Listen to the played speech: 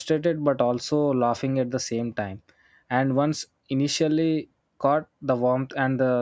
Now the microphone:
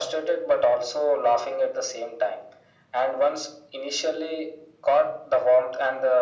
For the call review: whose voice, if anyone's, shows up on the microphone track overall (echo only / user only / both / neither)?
echo only